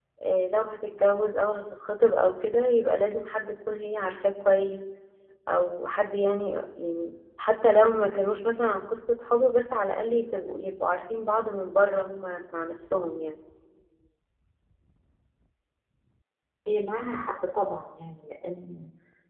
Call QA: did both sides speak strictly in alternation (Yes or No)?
Yes